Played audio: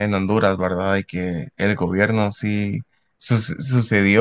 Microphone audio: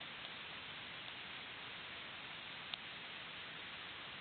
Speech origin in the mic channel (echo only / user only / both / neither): neither